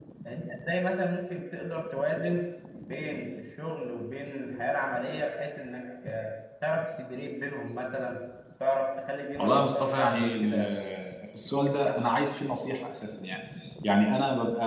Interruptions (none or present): present